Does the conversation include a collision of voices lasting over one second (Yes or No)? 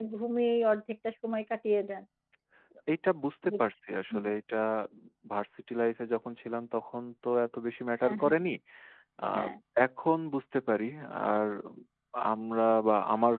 No